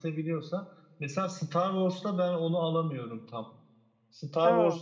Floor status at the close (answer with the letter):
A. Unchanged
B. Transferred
A